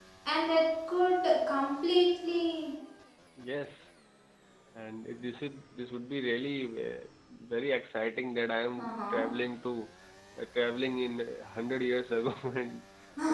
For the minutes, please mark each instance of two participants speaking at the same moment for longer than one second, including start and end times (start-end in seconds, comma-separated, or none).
none